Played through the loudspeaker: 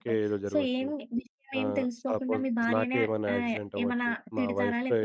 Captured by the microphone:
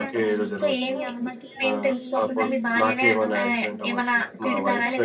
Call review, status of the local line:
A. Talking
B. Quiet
A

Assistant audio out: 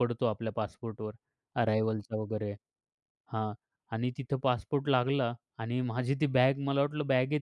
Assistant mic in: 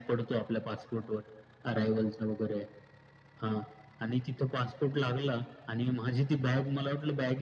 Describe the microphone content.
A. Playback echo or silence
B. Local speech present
A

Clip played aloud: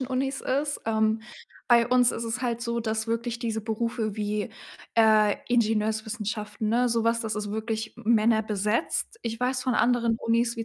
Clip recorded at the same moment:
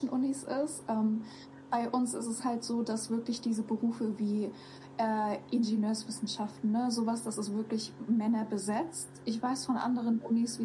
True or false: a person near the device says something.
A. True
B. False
B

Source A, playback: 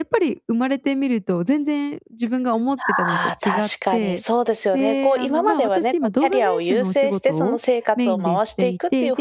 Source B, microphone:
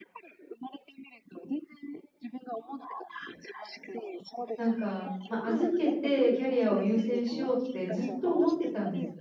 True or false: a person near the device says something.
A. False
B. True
B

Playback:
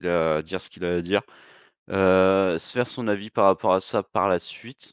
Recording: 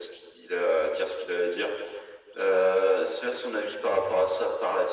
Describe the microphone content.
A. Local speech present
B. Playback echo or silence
B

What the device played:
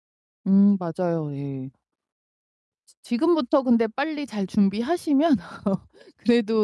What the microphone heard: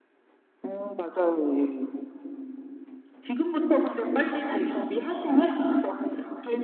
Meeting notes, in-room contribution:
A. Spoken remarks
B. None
B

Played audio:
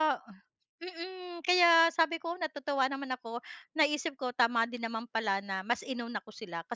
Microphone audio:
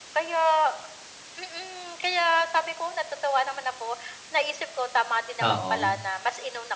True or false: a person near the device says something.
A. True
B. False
A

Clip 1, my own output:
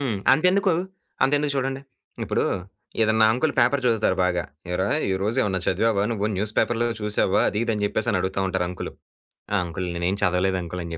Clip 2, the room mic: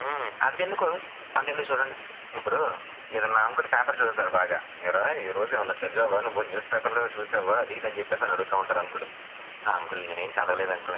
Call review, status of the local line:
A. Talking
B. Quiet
B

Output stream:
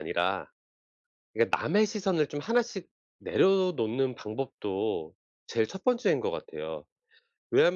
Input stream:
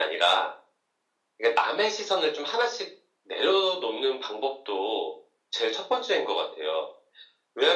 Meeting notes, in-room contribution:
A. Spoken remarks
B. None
B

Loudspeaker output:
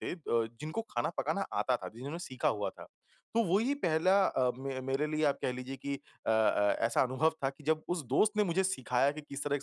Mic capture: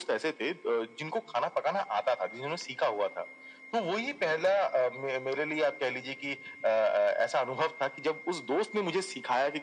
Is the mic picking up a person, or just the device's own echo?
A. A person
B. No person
B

